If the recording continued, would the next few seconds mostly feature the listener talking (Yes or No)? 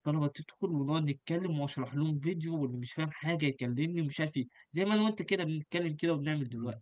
Yes